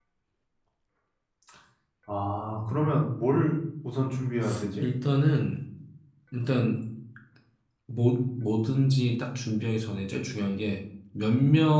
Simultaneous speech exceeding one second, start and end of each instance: none

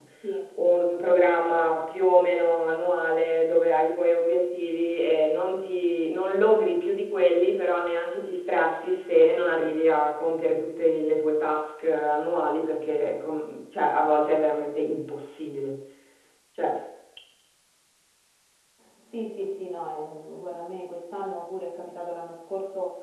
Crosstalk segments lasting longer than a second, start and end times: none

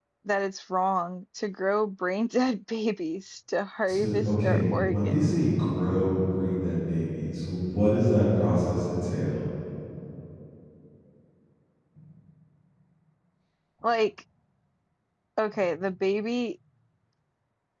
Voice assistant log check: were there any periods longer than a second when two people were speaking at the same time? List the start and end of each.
3.9-5.3

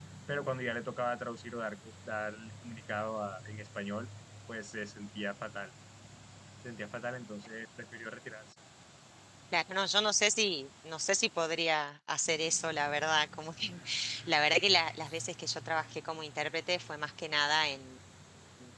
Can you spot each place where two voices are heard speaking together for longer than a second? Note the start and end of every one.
none

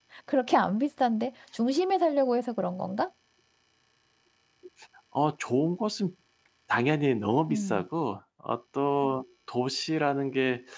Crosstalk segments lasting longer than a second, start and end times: none

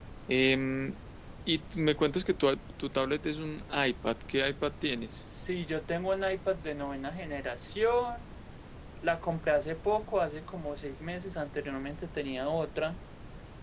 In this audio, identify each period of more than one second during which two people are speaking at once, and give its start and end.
none

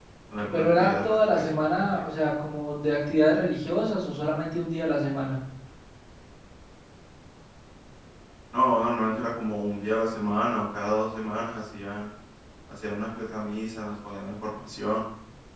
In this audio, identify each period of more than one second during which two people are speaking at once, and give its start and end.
0.5-2.0

